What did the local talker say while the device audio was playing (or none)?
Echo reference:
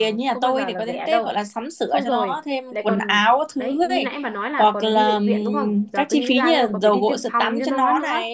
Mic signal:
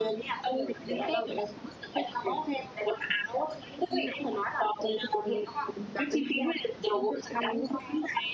none